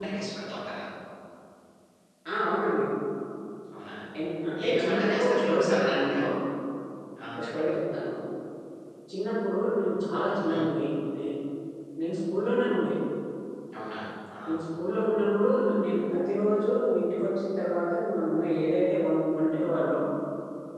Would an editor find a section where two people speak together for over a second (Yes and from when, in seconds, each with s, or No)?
Yes, from 4.6 s